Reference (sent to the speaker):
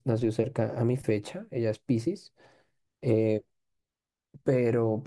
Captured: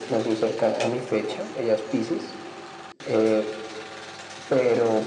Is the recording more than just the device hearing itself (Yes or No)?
No